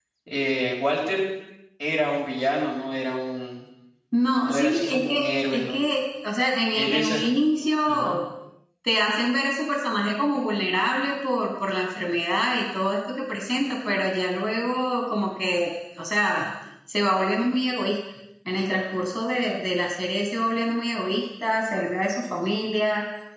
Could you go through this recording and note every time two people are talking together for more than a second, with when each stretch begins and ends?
4.5-5.8

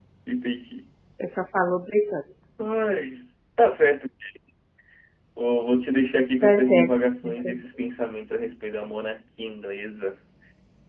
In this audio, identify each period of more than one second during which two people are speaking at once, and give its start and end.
none

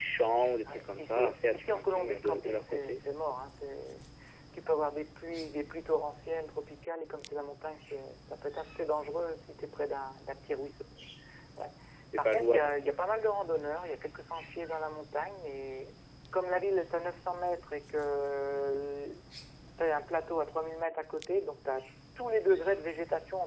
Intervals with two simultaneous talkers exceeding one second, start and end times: 0.7-3.3

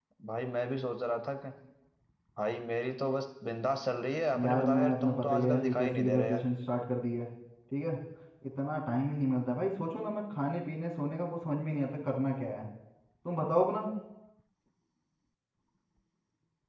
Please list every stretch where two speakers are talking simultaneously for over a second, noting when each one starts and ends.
4.4-6.4

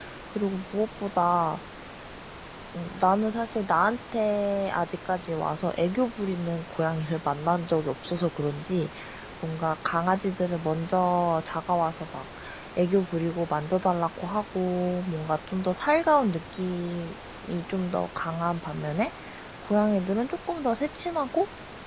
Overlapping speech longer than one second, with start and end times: none

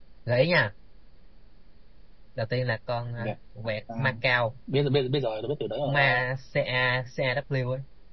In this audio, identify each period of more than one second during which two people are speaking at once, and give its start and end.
none

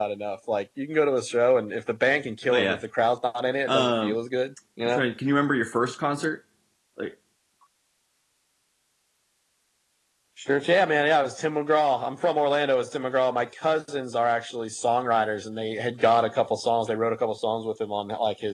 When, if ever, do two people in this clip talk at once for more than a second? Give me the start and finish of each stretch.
none

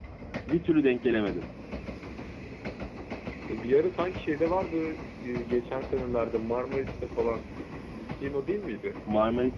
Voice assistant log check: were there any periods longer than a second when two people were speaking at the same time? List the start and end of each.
none

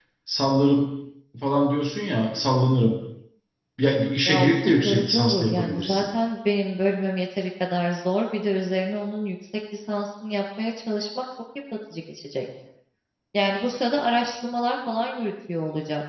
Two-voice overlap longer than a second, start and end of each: 4.2-6.0

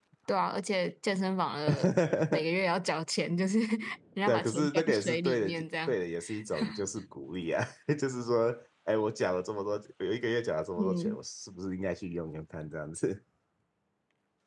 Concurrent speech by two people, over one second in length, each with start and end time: 4.3-6.0

